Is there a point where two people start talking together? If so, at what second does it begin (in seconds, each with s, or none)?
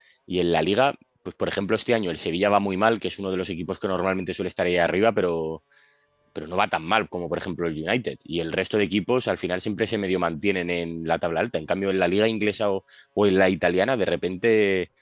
none